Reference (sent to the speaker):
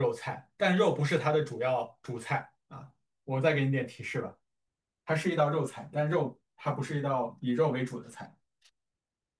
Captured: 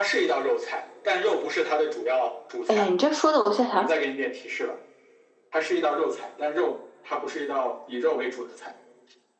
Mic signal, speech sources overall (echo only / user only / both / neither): both